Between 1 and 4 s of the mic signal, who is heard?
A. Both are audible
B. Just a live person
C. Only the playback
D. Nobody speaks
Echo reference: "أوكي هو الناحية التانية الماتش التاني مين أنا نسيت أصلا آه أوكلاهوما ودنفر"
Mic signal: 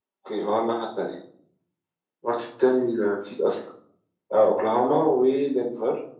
C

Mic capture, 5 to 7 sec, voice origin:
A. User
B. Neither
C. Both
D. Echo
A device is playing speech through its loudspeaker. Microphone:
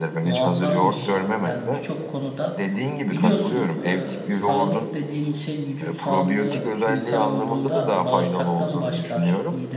C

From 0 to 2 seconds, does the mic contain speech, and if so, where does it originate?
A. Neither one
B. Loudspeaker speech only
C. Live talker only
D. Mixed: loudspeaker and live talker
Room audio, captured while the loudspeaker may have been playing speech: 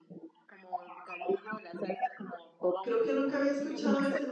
B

